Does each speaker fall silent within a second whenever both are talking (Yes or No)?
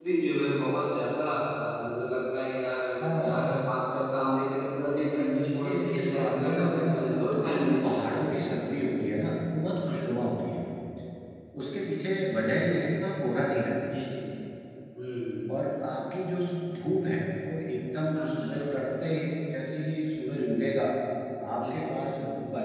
No